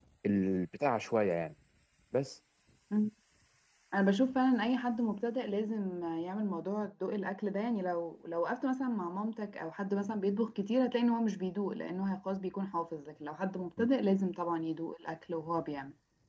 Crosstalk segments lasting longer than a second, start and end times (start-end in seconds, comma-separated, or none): none